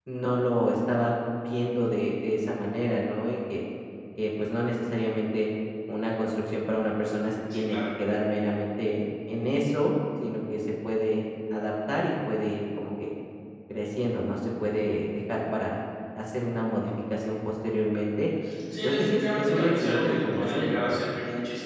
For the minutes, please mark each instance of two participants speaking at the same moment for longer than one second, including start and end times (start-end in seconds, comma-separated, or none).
18.8-21.0